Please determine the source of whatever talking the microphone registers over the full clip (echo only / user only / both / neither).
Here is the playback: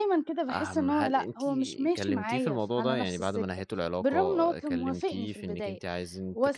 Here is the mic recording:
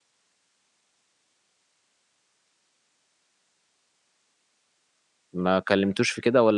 user only